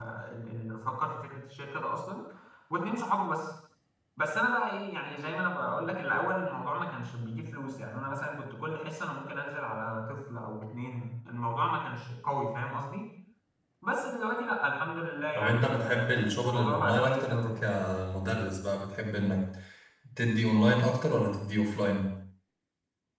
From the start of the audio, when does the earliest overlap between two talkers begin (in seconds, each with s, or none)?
15.3 s